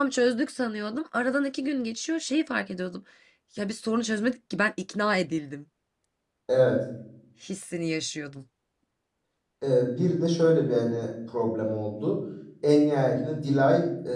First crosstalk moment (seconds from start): none

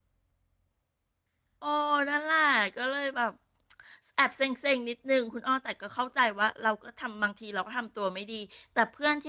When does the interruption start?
none

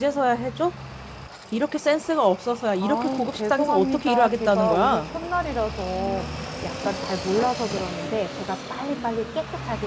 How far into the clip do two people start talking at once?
2.8 s

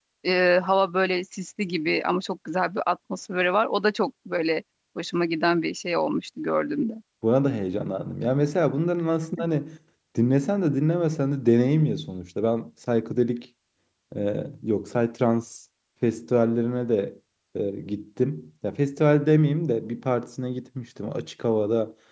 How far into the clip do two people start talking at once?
none

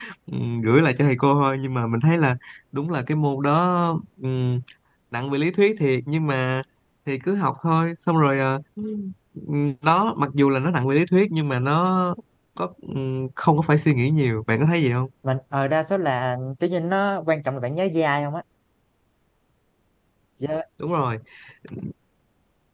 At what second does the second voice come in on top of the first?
none

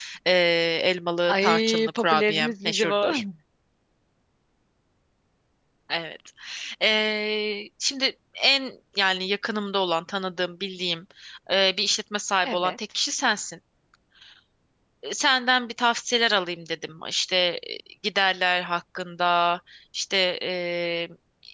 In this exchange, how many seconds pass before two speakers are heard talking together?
1.3 s

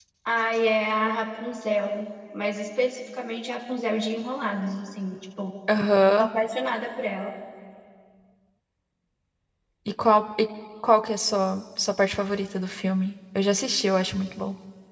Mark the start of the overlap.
none

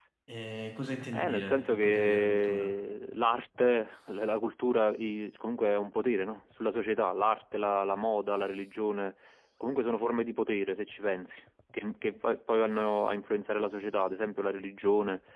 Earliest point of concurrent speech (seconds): 1.1 s

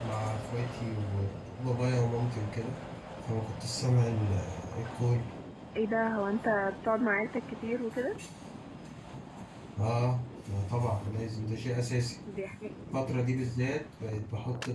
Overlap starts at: none

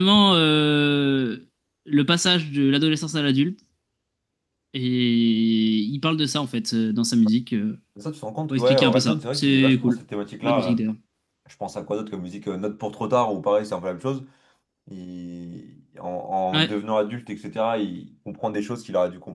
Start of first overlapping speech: 8.5 s

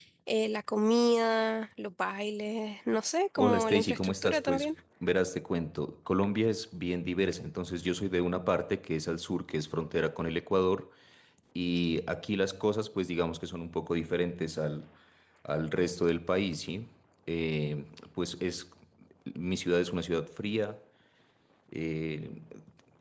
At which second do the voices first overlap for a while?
3.4 s

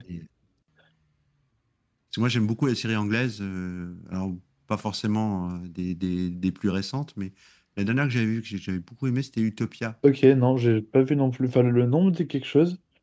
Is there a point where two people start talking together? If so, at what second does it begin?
none

